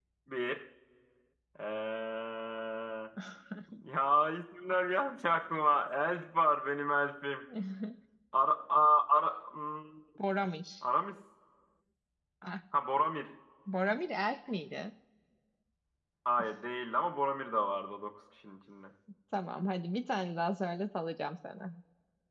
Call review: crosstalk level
none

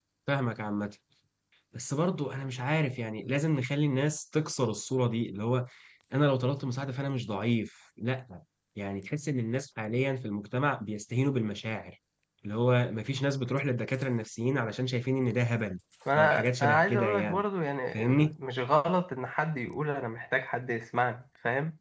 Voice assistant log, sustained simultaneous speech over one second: present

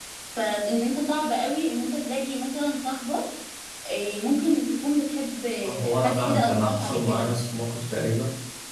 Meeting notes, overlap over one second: present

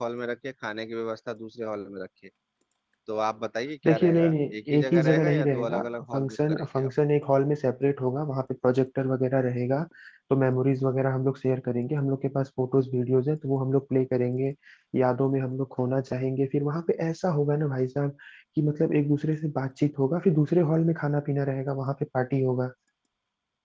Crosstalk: present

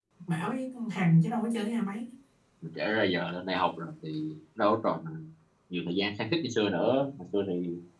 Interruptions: none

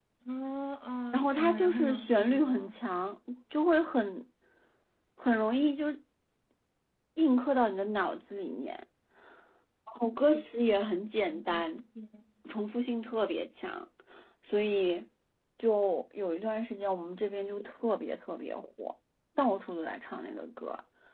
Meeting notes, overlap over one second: present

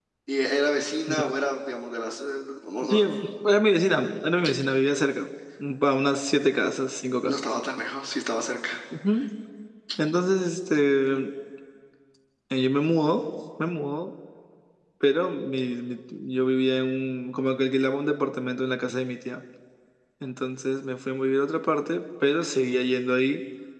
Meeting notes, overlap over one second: none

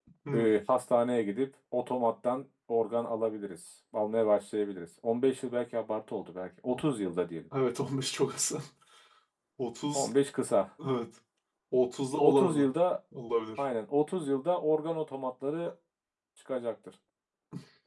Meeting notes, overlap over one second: none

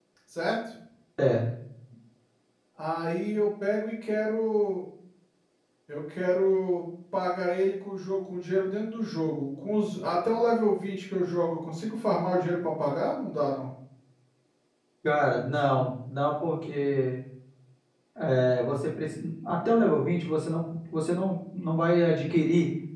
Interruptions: none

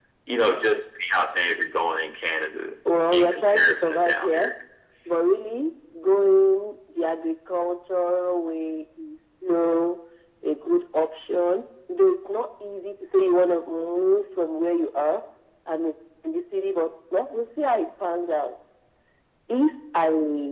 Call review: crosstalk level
present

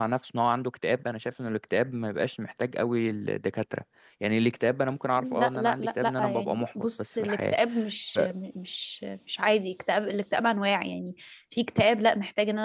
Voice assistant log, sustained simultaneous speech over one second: present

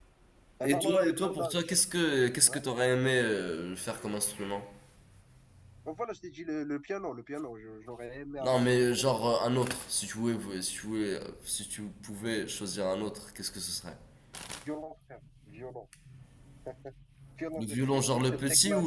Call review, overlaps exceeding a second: present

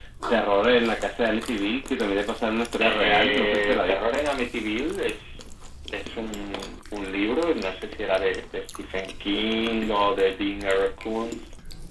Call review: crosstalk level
present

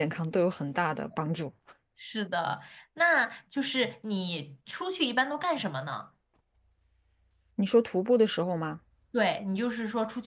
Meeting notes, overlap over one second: none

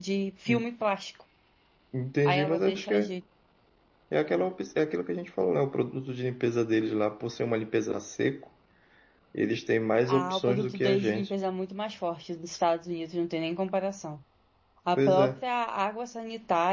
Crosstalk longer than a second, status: present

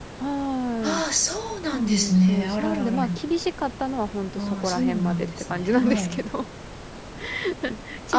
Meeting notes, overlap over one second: present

